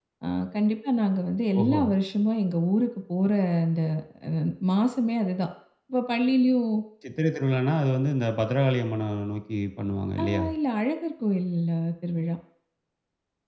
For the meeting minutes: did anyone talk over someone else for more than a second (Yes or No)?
No